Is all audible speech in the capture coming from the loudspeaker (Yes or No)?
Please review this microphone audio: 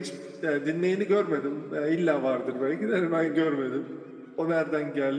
Yes